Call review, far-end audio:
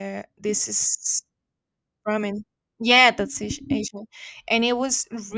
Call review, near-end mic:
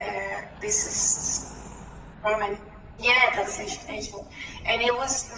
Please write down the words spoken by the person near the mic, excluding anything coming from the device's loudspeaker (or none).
none